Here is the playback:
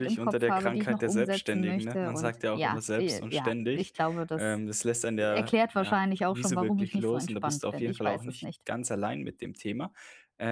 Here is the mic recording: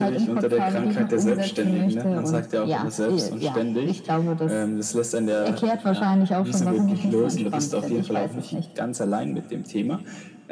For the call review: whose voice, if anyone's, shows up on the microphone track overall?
echo only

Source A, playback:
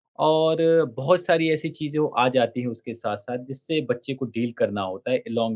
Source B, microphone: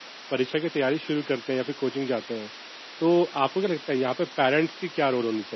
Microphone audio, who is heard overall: user only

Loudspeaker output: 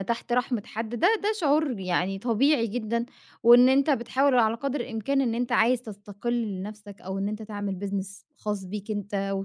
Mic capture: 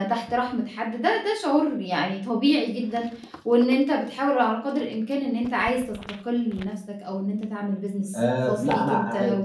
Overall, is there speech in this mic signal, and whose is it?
both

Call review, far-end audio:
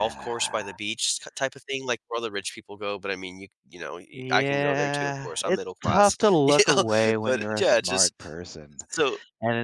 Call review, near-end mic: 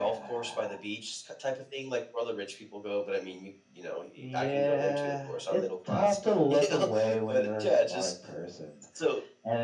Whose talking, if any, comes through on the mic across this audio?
echo only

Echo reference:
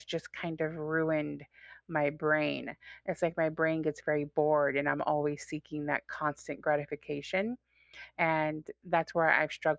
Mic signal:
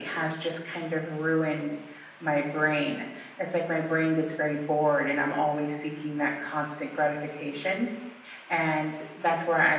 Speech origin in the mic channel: echo only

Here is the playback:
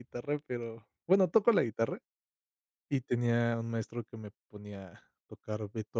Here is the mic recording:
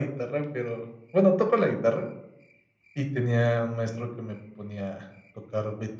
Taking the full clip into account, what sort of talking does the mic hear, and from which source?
echo only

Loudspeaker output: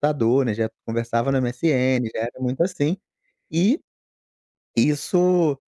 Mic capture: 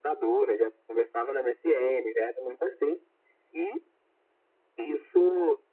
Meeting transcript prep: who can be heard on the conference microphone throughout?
echo only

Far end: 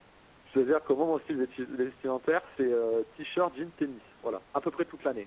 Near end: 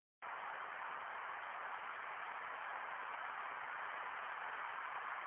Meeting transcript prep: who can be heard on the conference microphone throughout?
neither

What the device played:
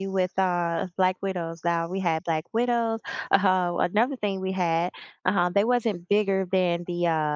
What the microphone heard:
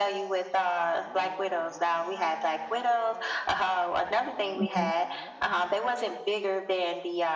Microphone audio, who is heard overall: both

